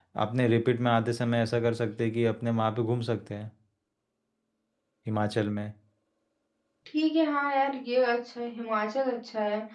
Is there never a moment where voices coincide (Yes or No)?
Yes